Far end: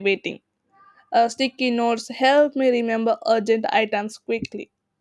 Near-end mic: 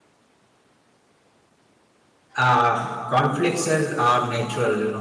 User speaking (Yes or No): Yes